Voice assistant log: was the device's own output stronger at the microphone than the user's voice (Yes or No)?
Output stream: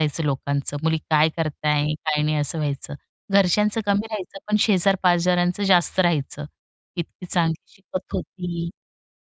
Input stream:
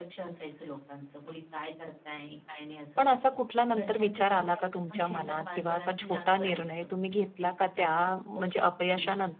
No